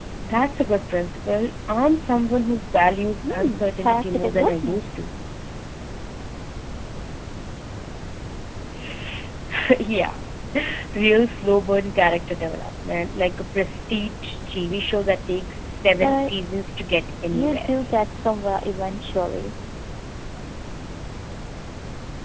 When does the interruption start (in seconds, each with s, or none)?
3.3 s